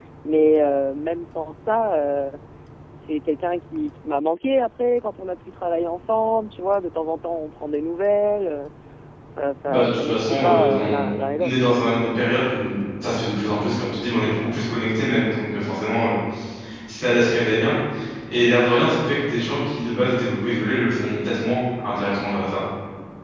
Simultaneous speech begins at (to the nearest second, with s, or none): 10 s